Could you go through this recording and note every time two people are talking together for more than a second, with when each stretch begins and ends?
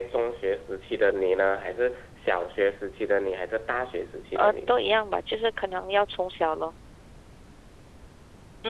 none

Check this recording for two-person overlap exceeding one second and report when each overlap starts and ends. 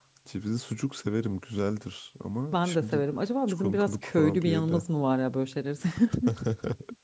3.5-4.8

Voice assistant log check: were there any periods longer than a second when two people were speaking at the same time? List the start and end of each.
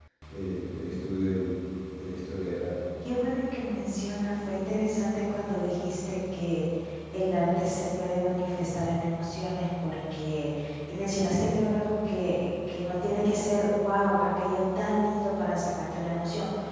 none

